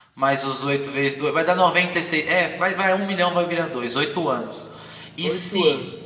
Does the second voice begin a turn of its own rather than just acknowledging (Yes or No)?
No